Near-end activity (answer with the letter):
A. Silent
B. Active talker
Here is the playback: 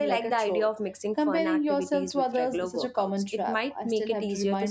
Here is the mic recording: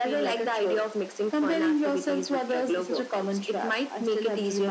A